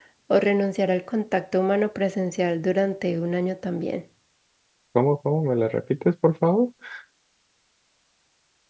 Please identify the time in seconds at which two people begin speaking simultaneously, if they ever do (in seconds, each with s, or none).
none